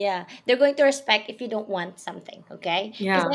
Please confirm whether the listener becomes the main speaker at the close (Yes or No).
No